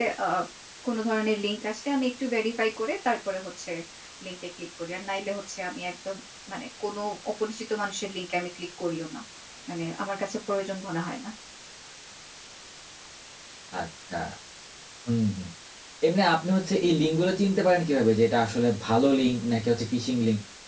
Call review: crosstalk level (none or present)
none